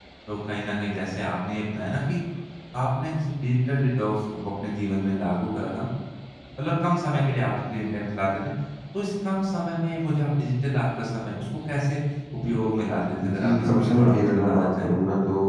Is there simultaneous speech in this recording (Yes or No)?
Yes